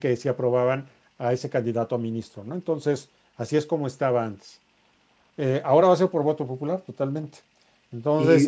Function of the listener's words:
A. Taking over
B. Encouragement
B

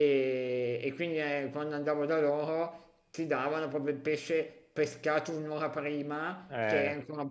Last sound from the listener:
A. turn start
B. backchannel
B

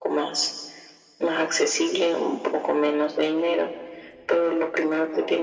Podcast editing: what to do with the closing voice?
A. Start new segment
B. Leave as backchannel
B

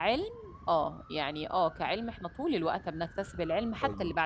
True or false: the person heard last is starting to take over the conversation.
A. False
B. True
B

